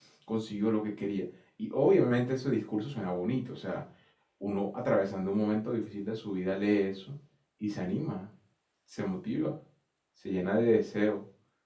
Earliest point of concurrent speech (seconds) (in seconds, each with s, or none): none